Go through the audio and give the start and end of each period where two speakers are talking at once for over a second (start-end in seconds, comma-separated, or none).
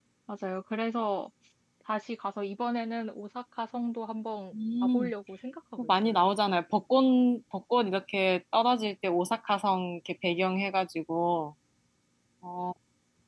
none